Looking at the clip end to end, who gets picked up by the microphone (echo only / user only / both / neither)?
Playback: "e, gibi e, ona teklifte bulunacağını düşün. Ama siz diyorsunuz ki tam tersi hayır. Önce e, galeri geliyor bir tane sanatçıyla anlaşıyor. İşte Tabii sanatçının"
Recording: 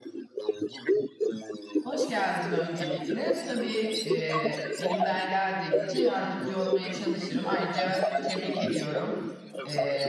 both